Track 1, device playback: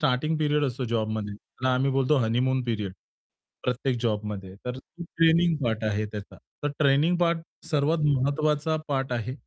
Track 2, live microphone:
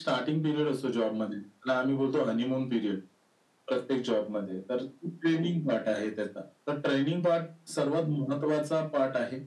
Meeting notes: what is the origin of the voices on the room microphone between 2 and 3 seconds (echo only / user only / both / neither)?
echo only